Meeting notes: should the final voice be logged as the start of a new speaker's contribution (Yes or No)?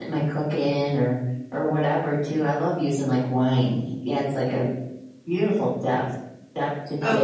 Yes